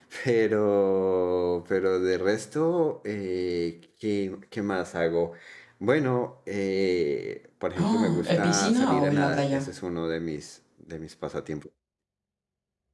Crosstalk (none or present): present